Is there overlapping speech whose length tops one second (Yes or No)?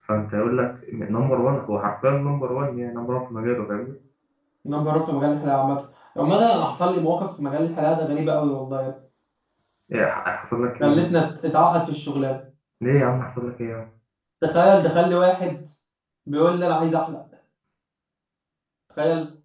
No